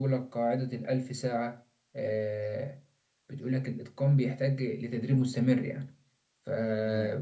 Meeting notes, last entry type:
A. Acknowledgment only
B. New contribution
A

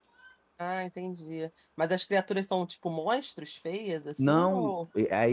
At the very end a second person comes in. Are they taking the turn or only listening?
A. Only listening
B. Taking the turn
B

